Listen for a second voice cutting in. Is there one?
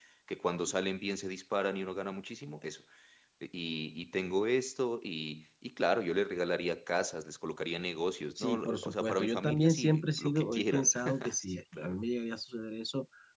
Yes, from 8.4 s

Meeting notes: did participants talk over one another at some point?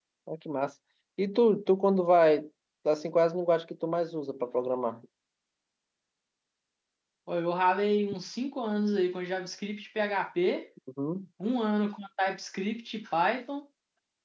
No

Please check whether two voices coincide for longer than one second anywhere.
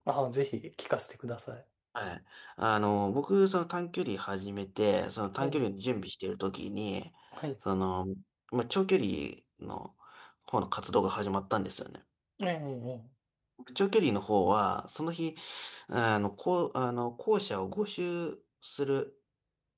No

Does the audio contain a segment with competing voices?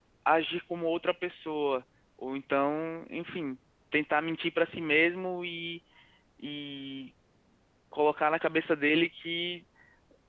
No

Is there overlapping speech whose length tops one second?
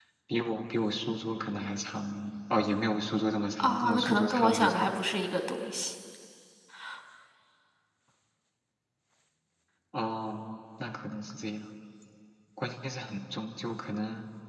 Yes, from 3.6 s

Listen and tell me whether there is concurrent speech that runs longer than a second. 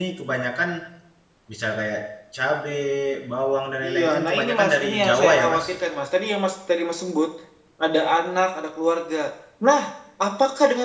Yes, from 3.8 s

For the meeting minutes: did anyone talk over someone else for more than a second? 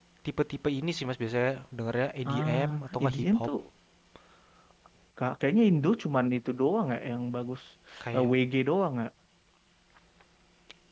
Yes, from 2.2 s

